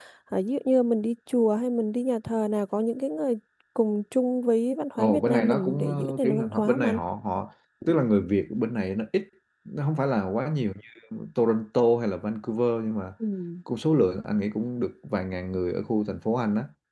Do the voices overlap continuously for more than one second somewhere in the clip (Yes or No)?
Yes